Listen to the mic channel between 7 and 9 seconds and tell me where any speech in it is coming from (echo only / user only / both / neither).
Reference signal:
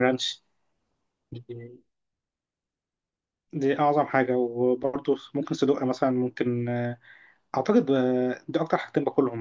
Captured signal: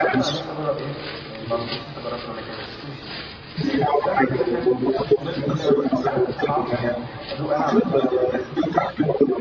both